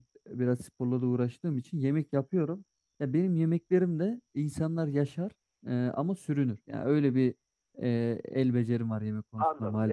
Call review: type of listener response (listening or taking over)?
taking over